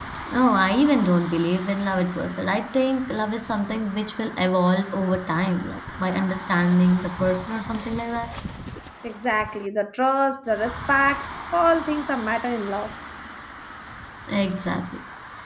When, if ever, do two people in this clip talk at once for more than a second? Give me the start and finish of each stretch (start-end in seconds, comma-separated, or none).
none